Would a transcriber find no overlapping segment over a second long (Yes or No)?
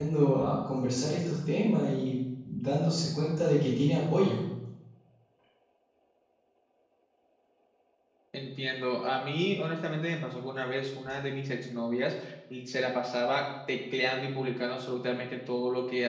Yes